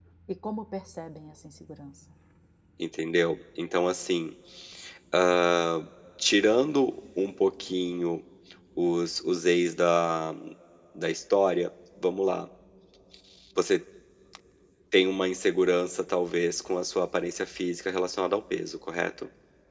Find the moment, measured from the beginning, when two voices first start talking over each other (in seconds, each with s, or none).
none